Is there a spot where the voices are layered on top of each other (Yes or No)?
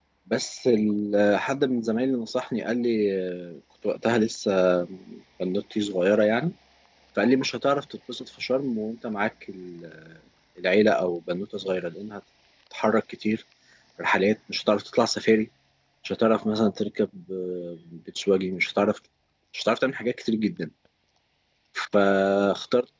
No